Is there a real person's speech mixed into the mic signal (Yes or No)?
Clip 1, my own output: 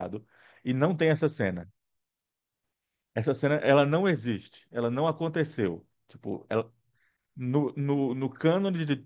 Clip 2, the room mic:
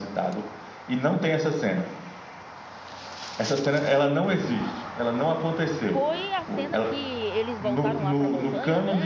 Yes